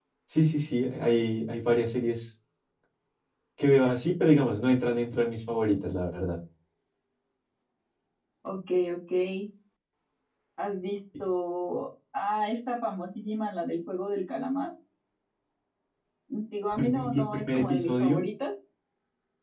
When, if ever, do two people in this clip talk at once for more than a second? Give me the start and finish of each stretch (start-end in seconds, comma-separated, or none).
16.8-18.2